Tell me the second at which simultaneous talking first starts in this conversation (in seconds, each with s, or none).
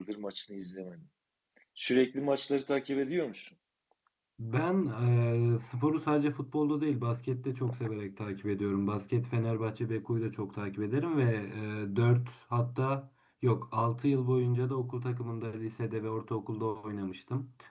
none